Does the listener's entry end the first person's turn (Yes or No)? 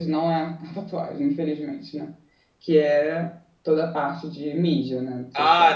Yes